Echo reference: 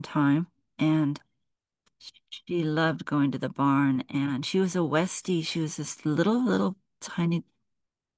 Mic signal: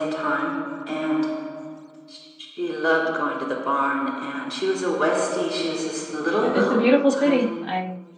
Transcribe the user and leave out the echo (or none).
Yeah, it's a beautiful city. I